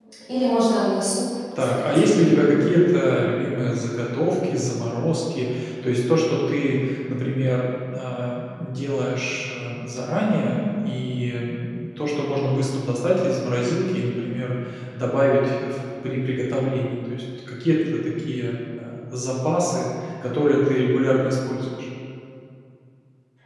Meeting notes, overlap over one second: none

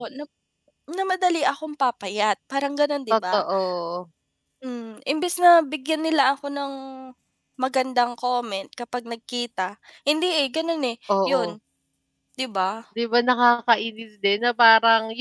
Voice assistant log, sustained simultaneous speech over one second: none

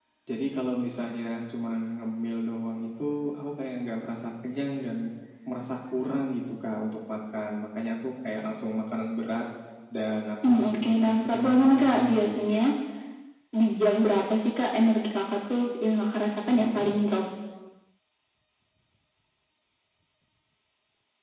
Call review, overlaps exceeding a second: present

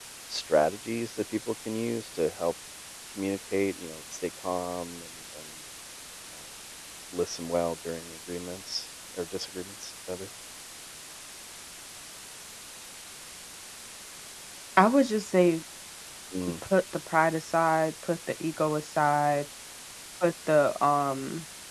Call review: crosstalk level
none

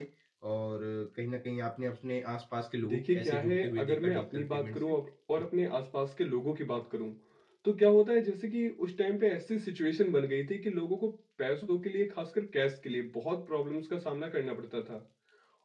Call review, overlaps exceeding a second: present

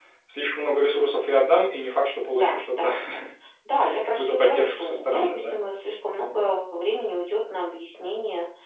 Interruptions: present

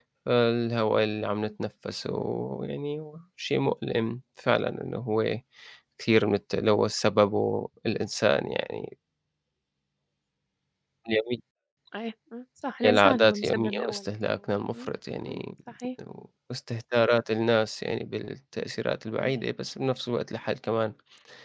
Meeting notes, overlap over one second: present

